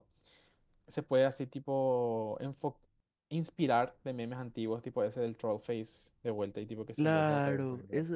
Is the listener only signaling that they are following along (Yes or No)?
No